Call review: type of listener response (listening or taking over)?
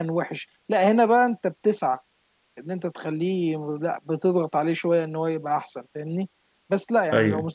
listening